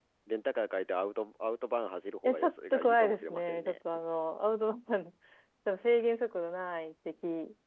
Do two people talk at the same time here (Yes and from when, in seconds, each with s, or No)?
Yes, from 2.2 s